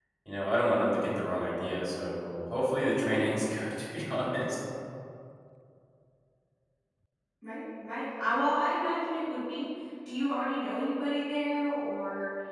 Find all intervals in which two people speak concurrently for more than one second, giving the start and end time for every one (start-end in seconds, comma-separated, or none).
none